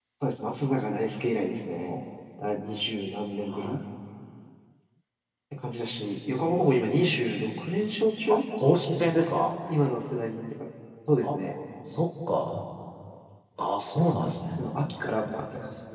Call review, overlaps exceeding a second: none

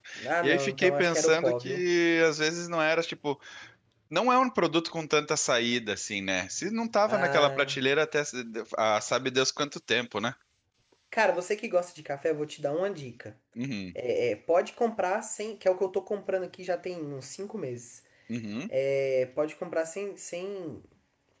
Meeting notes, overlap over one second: present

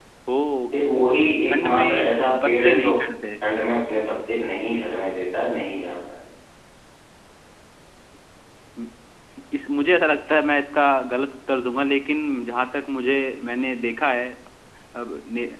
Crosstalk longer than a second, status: present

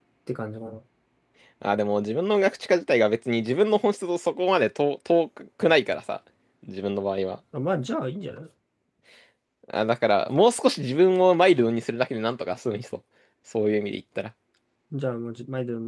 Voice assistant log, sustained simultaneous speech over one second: none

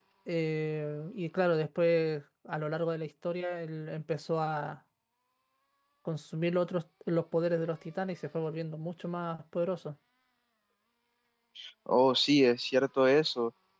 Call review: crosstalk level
none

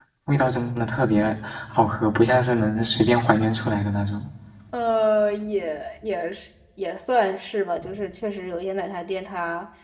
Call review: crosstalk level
none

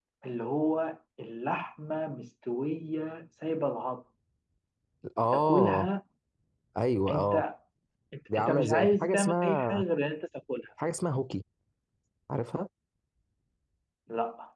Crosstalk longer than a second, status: present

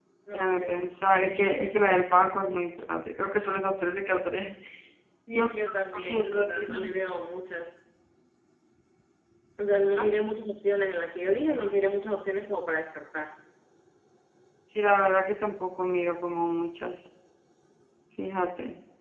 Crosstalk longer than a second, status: present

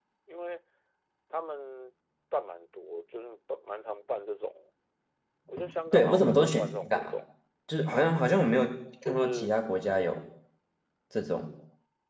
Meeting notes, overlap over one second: present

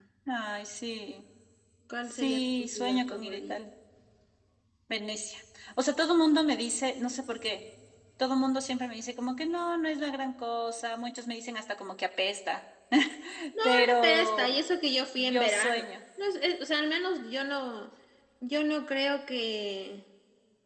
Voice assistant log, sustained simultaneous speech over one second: present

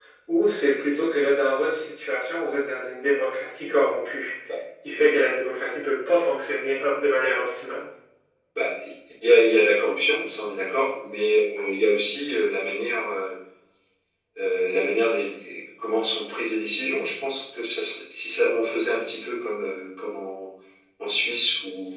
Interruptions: none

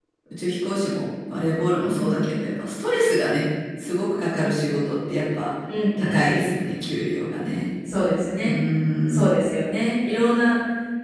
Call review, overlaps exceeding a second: none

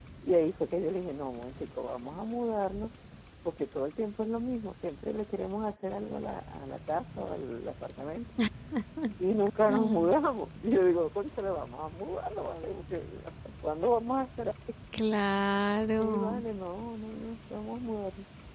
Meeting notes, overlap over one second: none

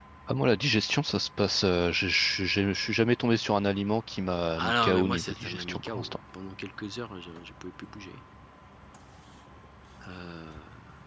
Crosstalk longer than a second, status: present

